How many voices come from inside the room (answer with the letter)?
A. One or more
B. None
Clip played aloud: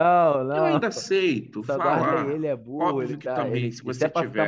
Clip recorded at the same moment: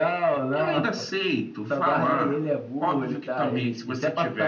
B